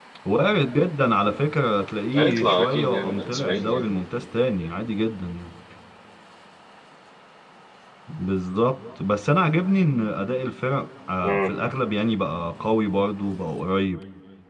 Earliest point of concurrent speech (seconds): 2 s

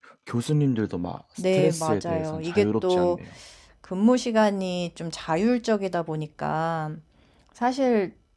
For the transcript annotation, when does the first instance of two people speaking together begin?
1 s

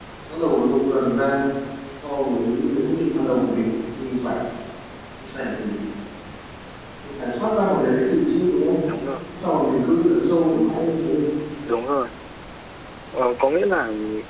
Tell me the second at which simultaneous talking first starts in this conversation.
none

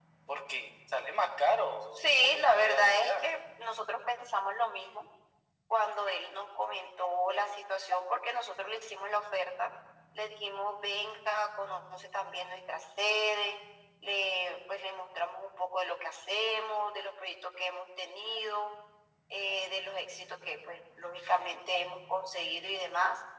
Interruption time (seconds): 2 s

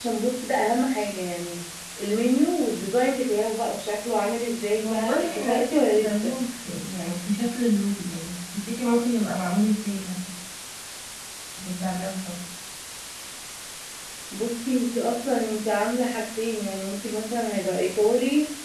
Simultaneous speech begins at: 5 s

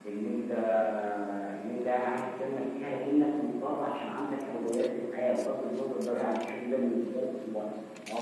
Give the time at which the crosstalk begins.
none

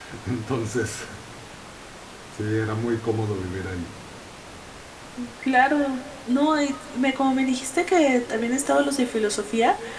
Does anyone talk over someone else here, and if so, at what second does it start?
none

